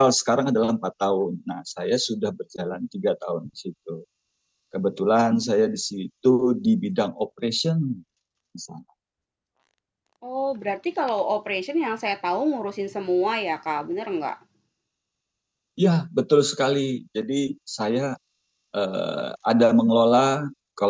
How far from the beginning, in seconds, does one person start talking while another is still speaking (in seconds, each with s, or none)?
none